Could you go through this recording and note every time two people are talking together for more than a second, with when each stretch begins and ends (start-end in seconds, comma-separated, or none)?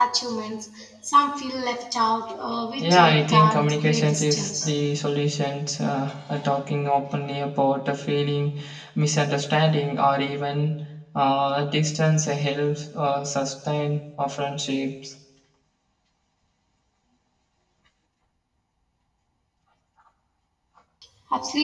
2.8-4.5